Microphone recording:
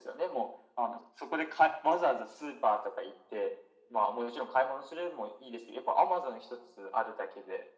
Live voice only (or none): none